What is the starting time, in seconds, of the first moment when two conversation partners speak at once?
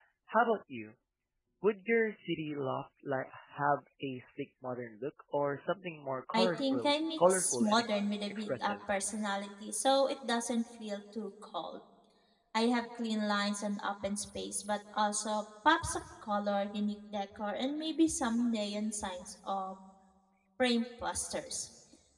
6.3 s

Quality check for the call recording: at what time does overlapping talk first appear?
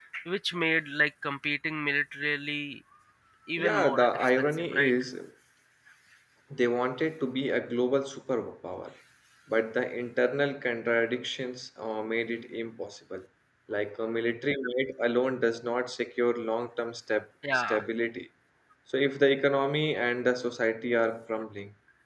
3.6 s

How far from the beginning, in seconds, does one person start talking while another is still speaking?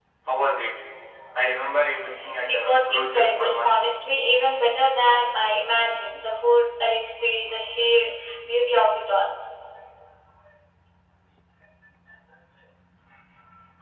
2.4 s

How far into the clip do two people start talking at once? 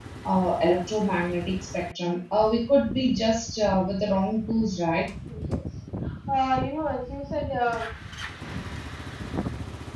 none

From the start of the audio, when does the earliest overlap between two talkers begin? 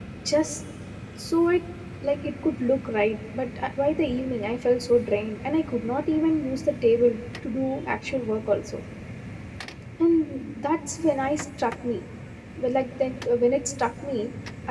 none

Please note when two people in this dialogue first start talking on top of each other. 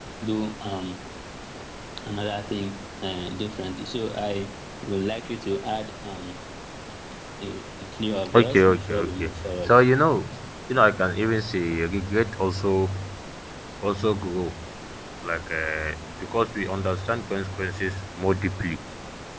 8.2 s

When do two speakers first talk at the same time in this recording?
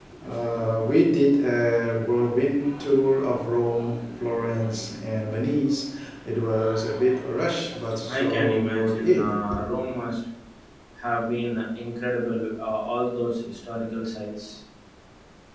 8.1 s

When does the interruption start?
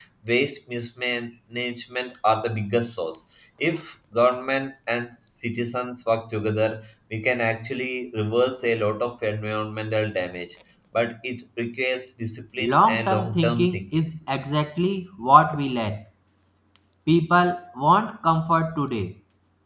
12.6 s

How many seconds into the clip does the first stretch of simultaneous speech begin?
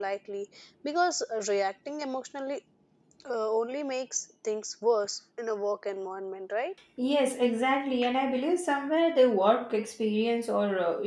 none

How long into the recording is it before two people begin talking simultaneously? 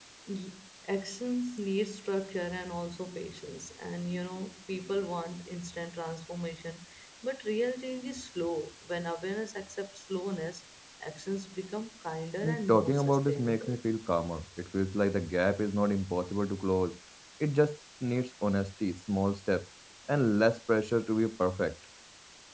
12.4 s

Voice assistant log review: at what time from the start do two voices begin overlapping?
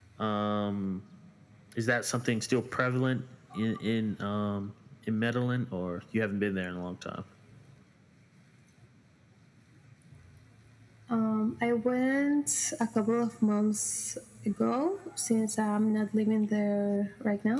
none

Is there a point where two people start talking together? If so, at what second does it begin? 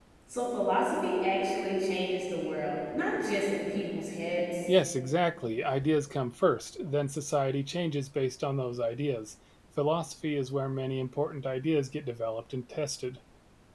none

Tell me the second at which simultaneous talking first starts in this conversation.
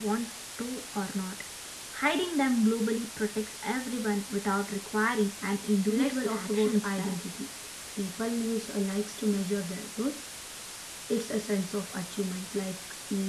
5.9 s

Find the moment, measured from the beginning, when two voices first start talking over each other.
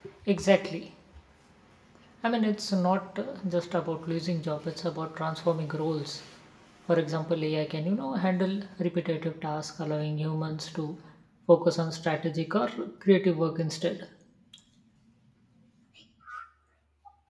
none

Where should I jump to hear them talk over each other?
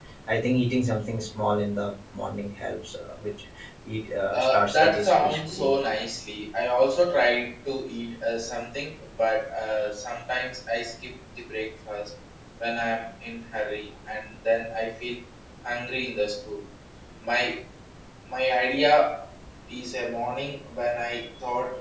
4.3 s

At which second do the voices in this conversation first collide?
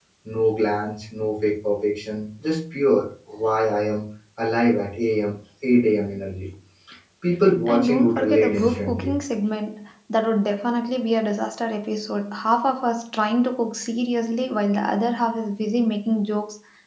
7.7 s

